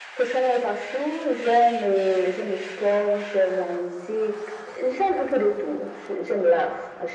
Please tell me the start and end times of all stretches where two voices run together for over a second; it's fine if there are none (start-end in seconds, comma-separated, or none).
none